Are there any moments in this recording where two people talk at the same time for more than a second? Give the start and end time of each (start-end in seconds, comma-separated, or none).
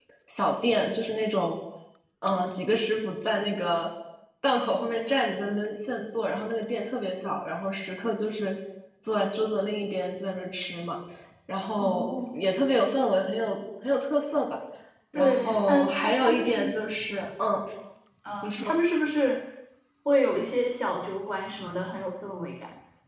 15.2-16.8